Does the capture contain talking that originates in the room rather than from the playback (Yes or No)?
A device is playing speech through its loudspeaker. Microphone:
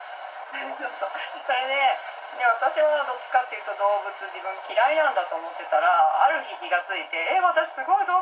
No